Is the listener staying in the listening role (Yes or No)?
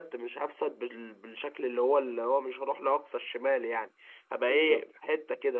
Yes